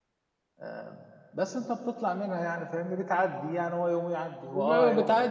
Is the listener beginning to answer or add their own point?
Yes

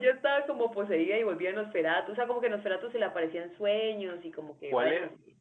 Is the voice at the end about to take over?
Yes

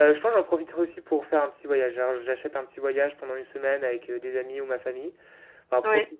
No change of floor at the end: Yes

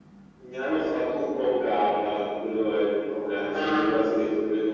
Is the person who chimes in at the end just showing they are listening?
Yes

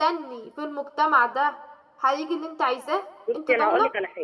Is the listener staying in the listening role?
No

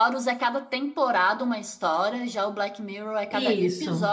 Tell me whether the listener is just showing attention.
No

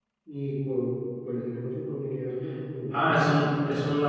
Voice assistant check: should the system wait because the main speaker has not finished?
No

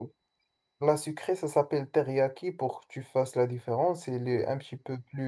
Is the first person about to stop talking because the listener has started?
No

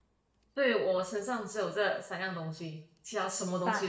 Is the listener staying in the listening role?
No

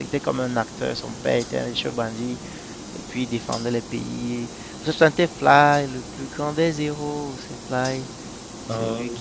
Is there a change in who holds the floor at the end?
No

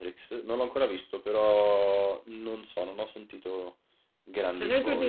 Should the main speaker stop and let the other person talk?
Yes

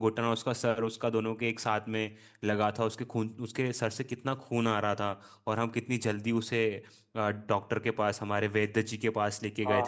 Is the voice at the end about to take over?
Yes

